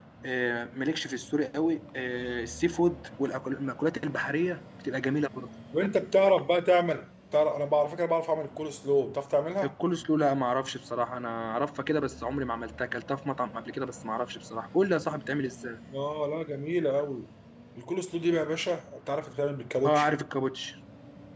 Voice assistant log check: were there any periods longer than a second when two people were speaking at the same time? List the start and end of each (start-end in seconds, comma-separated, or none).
none